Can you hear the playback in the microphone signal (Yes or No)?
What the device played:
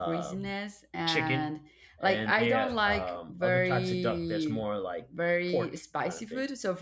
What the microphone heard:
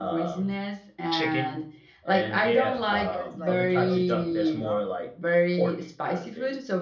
Yes